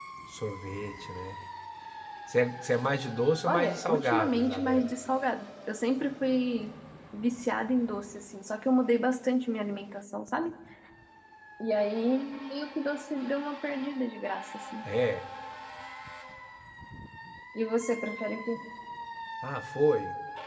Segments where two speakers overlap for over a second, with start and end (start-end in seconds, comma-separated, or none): 3.5-4.9